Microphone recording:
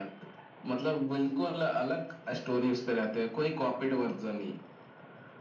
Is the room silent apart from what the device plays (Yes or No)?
Yes